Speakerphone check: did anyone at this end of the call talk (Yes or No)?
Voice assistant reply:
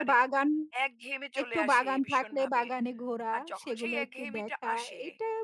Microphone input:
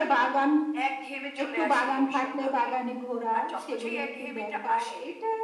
No